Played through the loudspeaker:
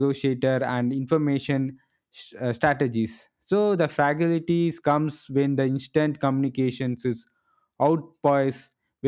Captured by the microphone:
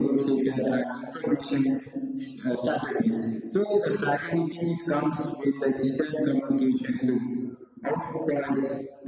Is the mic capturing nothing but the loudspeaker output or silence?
Yes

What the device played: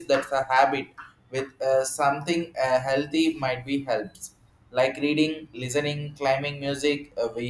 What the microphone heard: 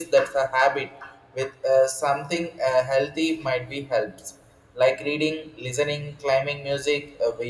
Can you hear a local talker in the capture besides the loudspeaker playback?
No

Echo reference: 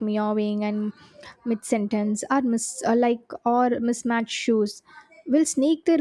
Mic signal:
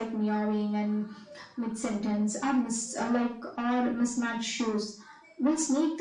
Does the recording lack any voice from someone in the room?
Yes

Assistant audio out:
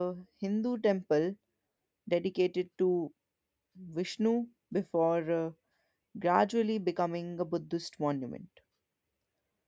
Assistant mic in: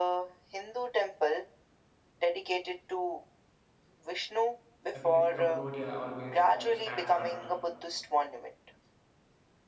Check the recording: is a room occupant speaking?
Yes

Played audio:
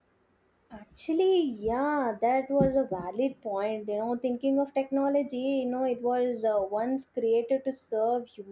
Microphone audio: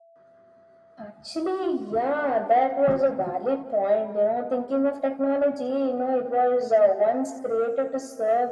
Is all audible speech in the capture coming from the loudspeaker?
Yes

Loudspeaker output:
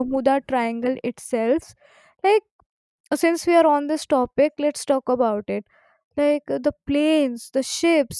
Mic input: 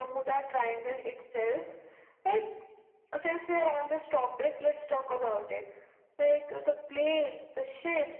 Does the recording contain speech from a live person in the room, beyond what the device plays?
No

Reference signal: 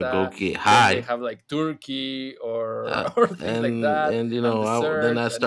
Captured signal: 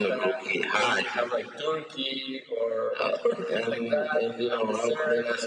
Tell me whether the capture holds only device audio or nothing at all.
Yes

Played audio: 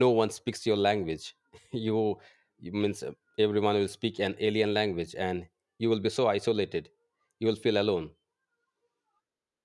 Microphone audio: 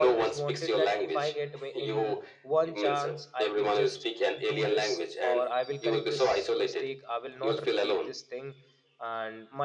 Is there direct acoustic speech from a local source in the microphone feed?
Yes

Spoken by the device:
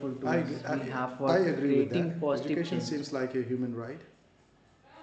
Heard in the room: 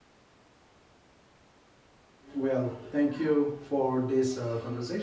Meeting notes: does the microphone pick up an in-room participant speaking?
Yes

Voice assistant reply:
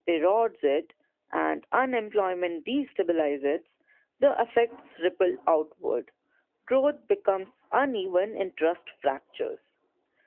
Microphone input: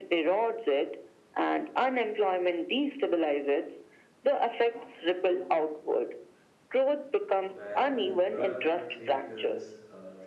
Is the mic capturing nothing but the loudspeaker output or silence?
No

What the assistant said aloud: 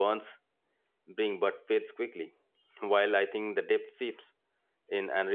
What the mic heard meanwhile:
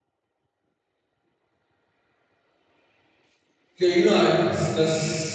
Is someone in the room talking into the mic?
Yes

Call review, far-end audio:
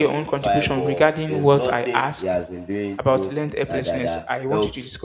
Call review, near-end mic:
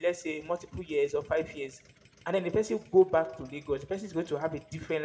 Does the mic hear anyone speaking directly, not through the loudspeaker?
Yes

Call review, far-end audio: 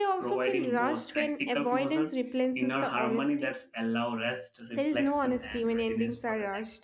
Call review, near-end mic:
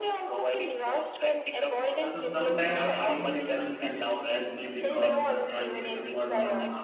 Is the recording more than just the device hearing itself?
Yes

